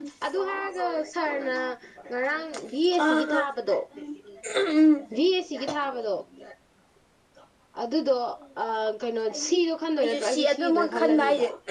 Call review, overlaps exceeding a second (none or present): present